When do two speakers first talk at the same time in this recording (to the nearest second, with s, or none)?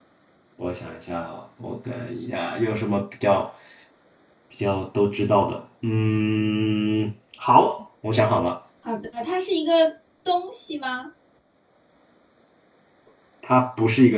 none